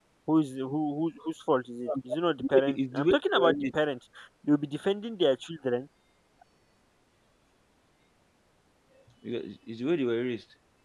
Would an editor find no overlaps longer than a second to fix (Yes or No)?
No